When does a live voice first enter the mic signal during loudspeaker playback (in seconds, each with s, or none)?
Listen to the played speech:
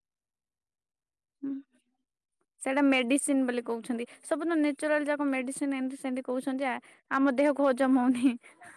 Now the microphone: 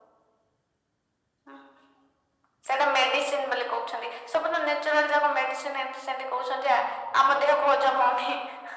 none